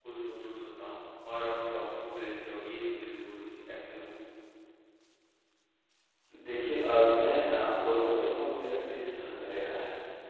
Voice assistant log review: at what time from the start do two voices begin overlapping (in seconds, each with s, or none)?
none